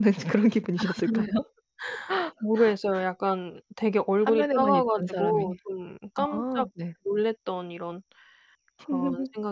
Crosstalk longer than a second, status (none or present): present